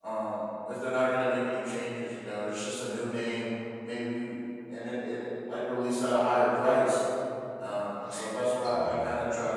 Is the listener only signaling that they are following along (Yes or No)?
Yes